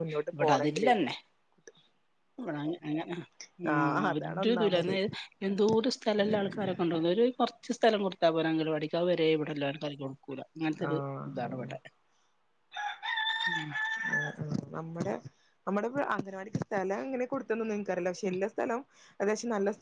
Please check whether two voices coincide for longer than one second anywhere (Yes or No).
Yes